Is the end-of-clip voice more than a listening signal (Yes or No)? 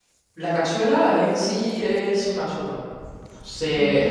No